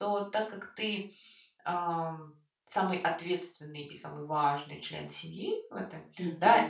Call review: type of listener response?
listening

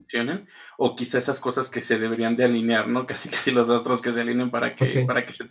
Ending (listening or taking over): listening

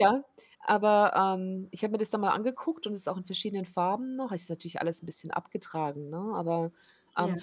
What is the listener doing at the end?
listening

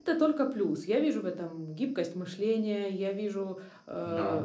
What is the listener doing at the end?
listening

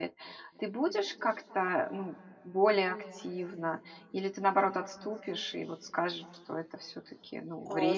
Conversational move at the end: taking over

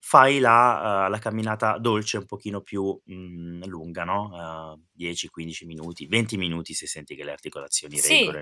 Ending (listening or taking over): taking over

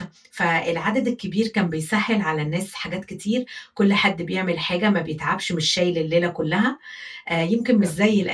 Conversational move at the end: listening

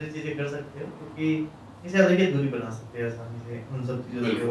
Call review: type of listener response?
listening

